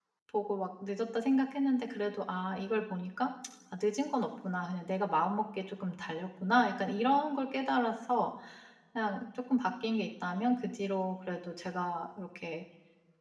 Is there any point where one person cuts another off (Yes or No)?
No